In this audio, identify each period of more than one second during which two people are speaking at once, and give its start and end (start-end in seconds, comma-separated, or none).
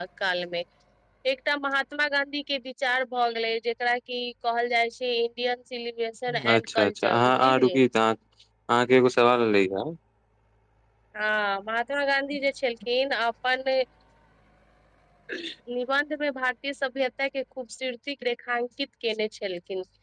6.5-7.8